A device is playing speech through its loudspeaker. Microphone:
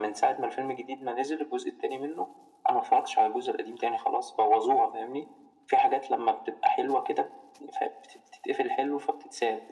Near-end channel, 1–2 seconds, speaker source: echo only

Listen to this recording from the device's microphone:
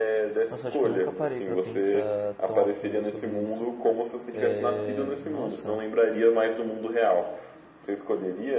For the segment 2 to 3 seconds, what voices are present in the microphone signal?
both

